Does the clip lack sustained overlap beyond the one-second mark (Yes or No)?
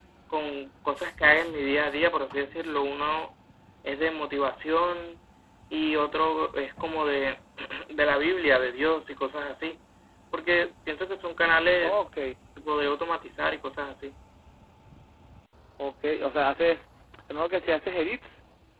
Yes